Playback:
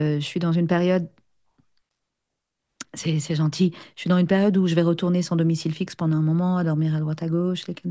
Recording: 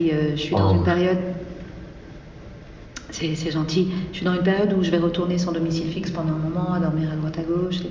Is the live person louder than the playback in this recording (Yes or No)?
Yes